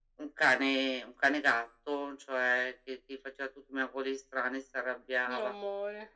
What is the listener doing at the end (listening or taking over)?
listening